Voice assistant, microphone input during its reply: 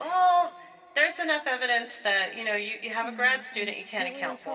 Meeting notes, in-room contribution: present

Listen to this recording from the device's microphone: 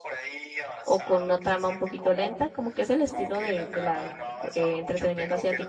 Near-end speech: present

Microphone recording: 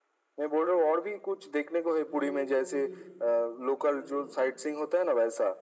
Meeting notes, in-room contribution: present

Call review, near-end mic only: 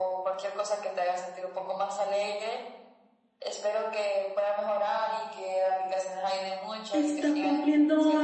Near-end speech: present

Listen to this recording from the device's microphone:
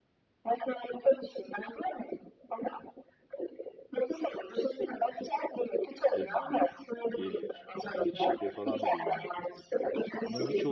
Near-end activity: present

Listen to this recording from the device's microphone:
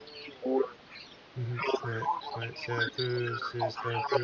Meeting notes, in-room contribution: present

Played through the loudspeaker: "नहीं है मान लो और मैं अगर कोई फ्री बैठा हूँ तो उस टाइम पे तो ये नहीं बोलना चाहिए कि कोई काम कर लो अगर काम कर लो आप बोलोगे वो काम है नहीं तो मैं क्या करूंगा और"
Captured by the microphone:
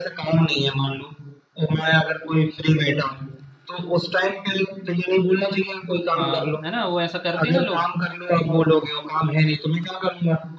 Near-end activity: present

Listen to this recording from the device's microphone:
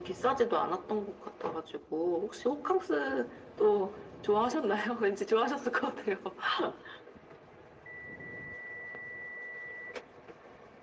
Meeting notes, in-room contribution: none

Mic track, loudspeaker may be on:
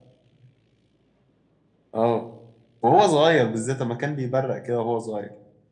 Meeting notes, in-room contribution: none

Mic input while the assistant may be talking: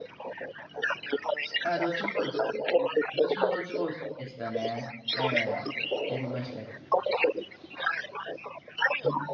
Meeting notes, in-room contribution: present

